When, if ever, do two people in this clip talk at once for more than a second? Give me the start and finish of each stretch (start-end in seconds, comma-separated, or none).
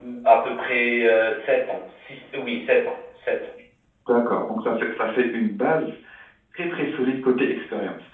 none